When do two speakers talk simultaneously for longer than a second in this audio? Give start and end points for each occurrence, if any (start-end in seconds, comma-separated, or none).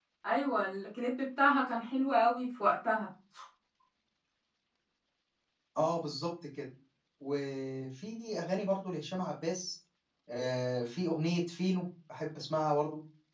none